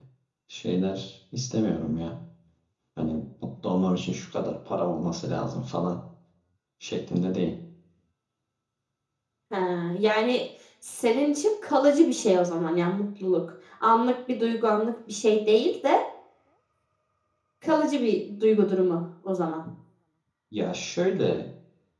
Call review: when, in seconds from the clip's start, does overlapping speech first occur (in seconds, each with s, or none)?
none